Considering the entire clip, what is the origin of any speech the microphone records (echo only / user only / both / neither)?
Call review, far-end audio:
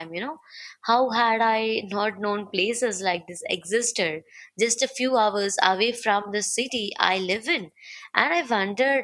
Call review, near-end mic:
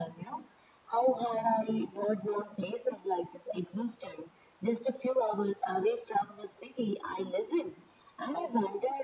echo only